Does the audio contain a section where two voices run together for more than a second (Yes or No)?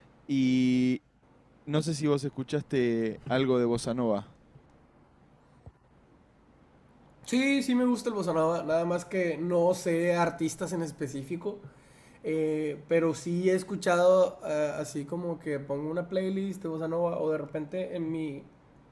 No